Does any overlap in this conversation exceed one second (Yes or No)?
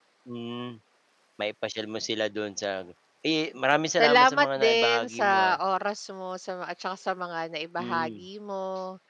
Yes